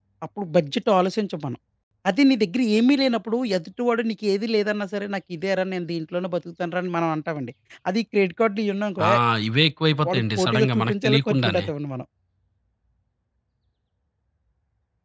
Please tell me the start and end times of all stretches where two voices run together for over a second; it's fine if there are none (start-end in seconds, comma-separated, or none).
10.1-11.7